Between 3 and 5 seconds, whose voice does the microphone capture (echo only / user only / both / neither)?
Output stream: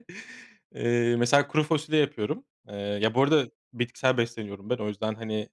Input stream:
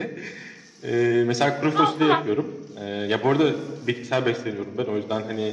echo only